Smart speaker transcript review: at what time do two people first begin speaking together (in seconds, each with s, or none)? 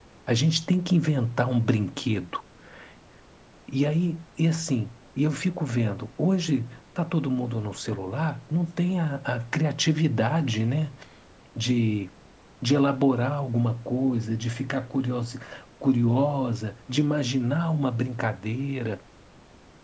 none